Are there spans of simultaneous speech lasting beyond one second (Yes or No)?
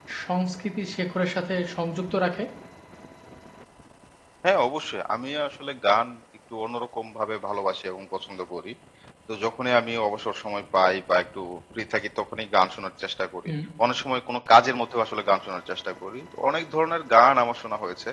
No